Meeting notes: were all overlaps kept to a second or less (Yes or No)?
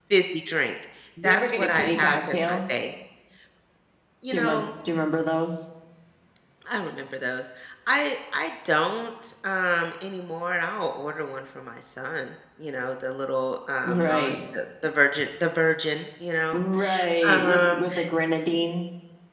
No